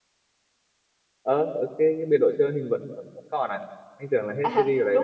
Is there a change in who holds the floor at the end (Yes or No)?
Yes